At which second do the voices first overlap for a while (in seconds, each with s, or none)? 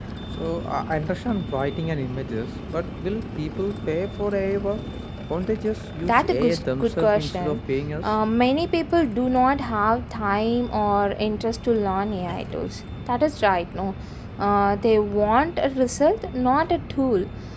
6.0 s